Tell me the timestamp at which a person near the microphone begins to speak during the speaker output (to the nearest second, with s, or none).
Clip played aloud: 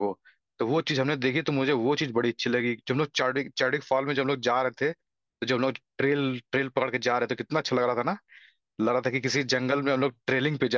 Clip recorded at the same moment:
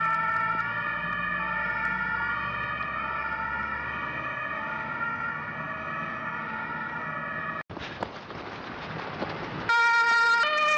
none